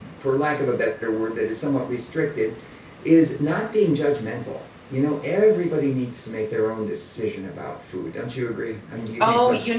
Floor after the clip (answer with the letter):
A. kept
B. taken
B